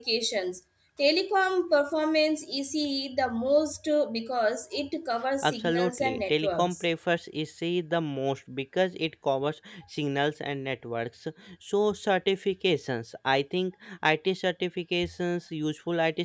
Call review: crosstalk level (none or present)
present